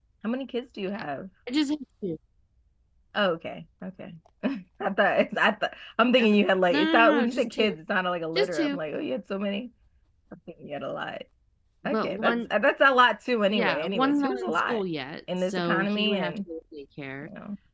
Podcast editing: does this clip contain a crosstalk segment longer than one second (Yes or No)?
Yes